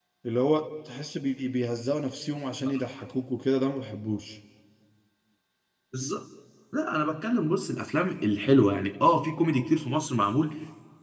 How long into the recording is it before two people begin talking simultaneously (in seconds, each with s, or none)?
none